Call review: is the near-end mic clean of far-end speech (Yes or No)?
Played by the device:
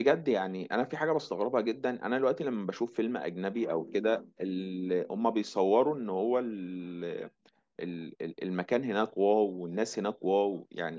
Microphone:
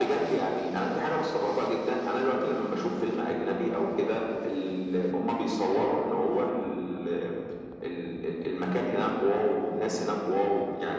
No